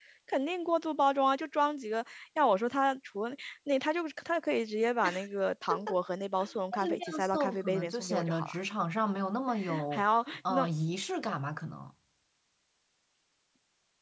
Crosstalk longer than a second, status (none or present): present